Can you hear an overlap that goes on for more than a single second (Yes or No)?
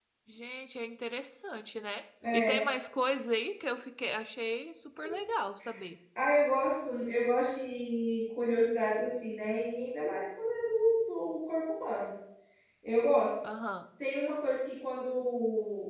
No